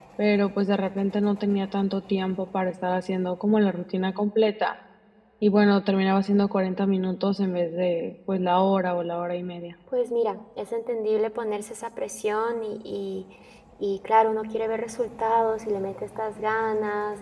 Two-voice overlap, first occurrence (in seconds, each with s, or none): none